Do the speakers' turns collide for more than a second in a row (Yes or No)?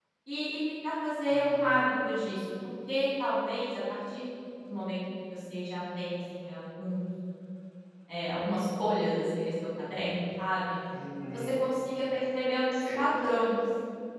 No